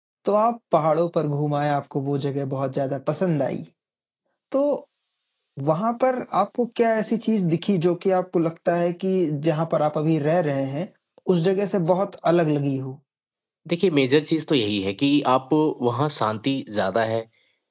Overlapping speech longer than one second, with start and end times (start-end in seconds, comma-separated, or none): none